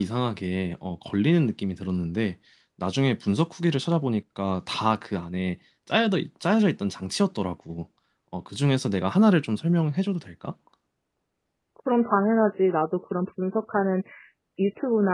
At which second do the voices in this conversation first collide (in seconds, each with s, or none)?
none